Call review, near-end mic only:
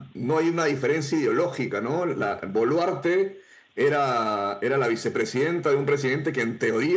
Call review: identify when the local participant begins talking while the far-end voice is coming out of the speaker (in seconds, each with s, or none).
none